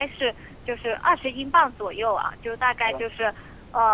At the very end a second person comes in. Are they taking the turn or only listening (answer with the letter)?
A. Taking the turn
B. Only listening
B